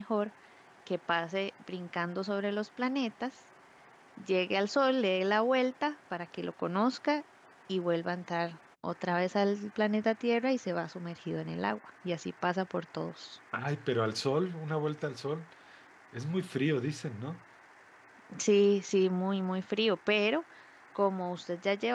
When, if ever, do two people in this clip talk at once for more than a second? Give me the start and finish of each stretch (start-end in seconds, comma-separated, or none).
none